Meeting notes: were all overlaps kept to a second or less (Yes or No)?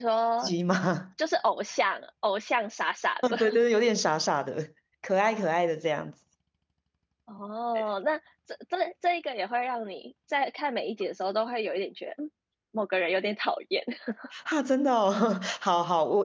Yes